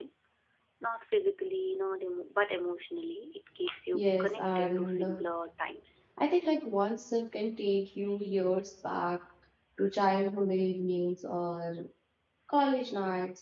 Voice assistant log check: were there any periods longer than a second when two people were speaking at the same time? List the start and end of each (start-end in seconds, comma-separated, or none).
3.9-5.2